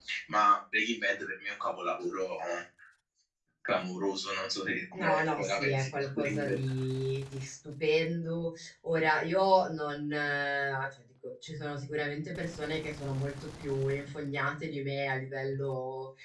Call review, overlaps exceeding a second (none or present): present